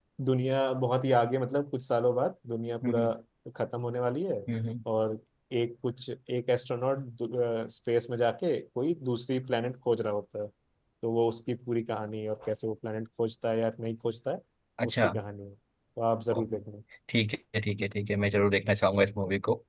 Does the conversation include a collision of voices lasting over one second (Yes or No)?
No